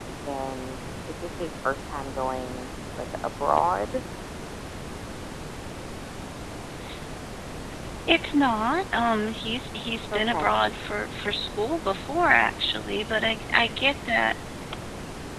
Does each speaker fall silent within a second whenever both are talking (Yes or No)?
Yes